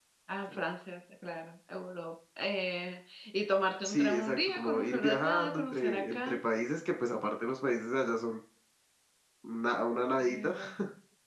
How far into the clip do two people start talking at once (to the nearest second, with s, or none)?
4 s